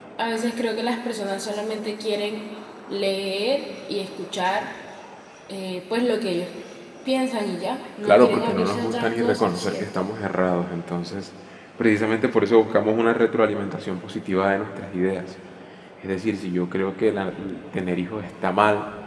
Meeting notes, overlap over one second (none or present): present